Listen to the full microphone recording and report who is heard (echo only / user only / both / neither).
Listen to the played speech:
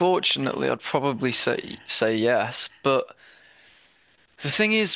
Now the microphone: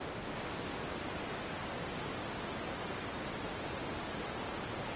neither